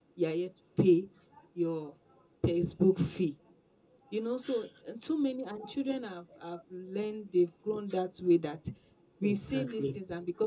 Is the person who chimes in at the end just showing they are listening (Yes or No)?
Yes